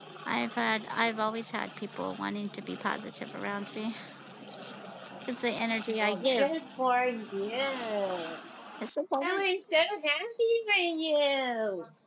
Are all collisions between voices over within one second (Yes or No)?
Yes